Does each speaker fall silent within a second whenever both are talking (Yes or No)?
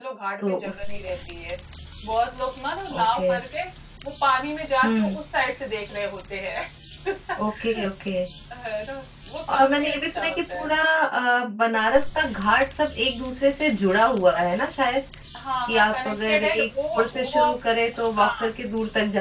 No